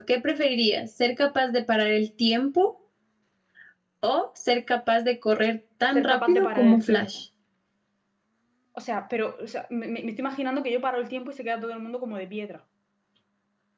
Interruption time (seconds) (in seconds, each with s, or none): 6.0 s